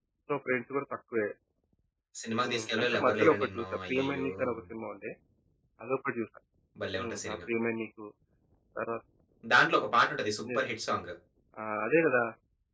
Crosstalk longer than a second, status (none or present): present